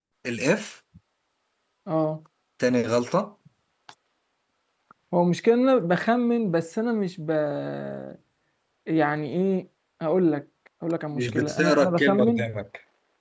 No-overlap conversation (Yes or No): No